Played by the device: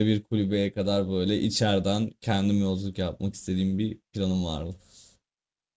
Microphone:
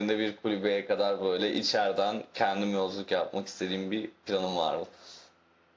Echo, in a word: present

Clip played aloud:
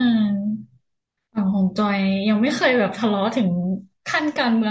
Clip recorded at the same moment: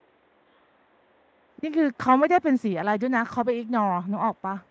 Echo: none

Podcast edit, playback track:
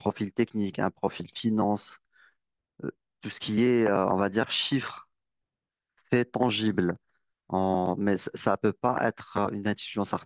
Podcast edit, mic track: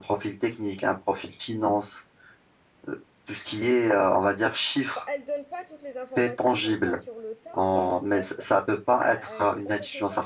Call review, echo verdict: present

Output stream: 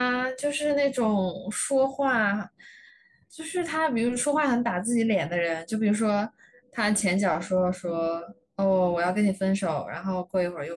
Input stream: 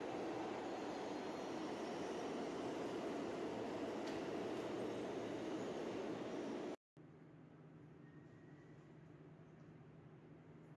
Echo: none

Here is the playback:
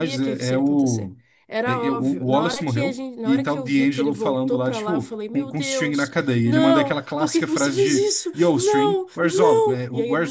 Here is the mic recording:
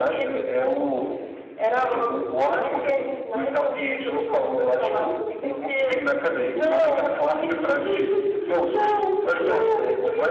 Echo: present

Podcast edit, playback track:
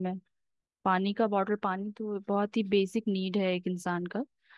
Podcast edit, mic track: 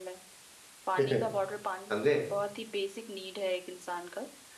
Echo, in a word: present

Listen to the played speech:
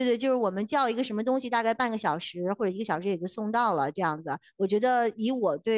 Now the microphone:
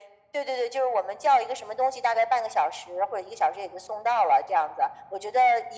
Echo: present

